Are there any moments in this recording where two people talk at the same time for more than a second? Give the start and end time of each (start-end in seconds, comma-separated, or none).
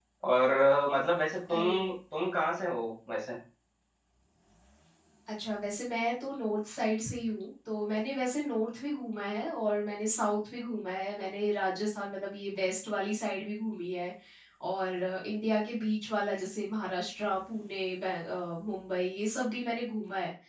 none